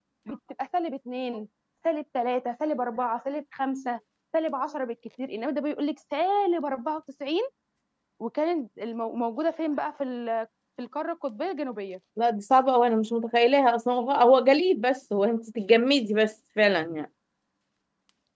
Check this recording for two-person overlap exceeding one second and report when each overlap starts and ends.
none

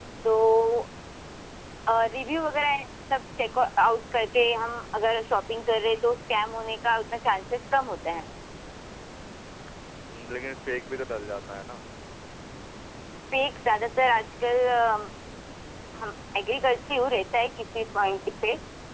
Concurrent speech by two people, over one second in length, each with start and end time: none

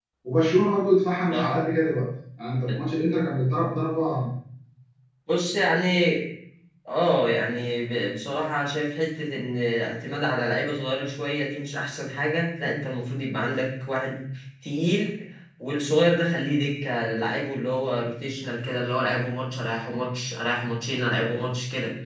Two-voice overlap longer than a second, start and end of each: none

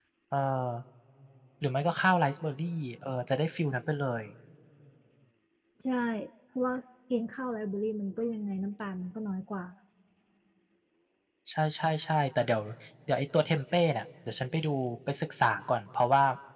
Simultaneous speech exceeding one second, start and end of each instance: none

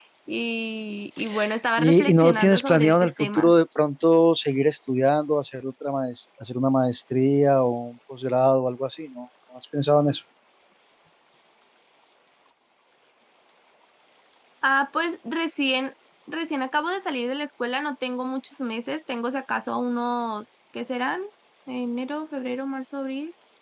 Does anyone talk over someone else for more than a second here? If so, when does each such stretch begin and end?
1.8-3.5

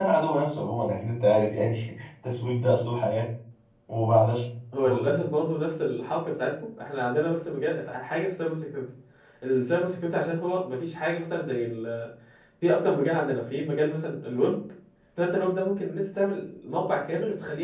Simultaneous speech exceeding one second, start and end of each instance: none

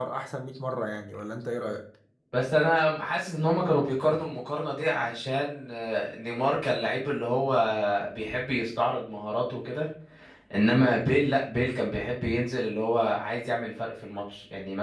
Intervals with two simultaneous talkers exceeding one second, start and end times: none

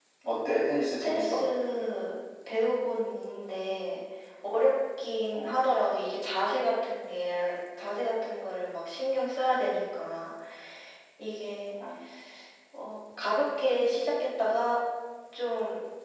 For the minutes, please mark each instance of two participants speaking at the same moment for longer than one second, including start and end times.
none

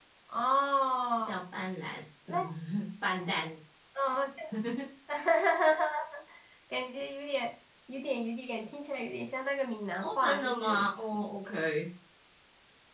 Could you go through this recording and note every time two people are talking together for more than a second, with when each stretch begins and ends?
10.0-11.2

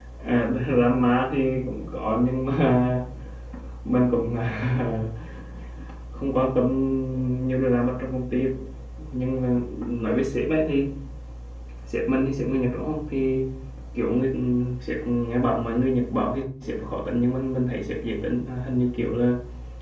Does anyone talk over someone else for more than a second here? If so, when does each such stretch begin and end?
none

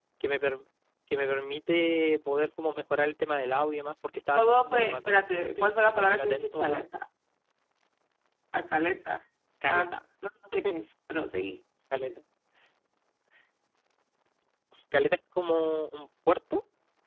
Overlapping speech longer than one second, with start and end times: 4.3-6.8

